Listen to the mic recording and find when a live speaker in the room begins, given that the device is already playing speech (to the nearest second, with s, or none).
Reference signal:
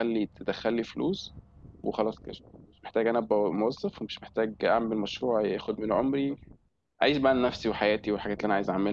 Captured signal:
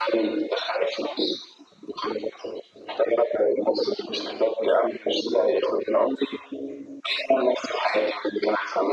none